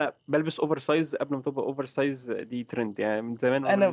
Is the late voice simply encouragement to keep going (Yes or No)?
Yes